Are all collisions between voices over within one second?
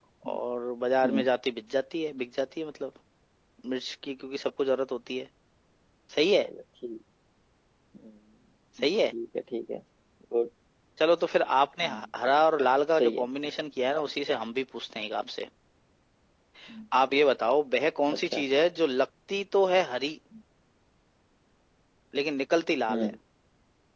Yes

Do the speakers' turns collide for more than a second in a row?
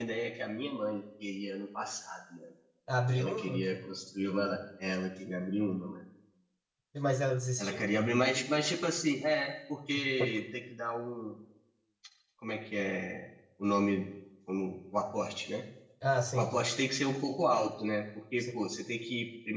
No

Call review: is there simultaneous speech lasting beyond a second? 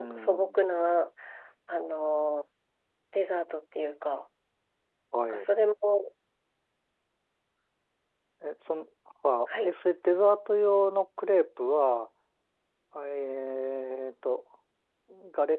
No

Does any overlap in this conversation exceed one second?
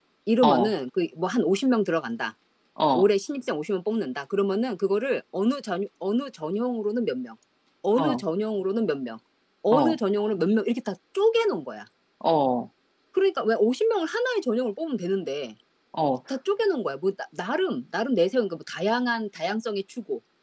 No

